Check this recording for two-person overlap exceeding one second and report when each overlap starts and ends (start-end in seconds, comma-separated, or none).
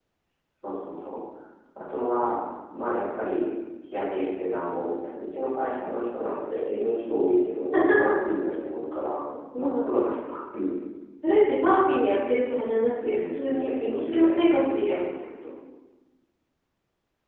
13.0-14.9